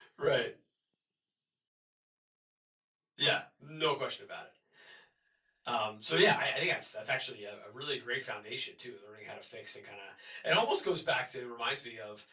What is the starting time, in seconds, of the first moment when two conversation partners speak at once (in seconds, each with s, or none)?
none